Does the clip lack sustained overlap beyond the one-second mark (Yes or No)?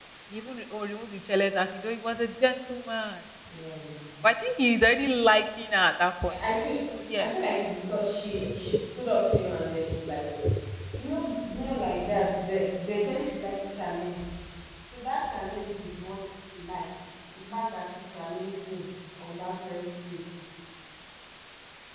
Yes